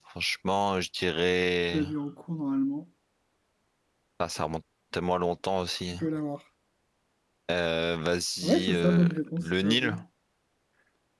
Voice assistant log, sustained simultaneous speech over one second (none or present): present